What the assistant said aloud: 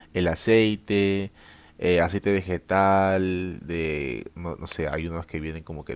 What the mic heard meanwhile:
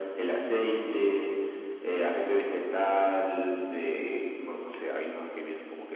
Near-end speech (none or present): none